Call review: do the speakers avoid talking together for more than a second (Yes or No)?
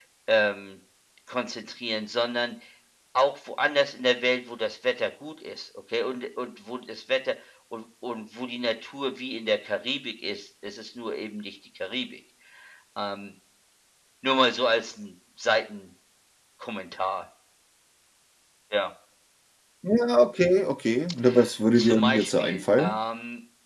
No